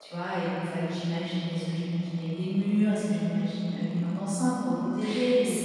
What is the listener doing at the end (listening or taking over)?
taking over